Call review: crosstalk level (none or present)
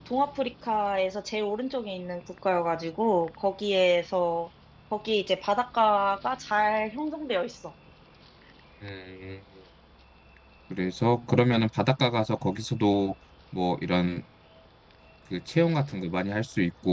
none